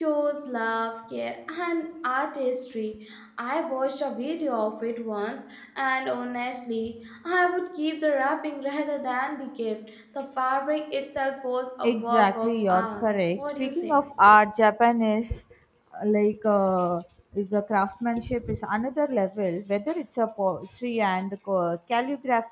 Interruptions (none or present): present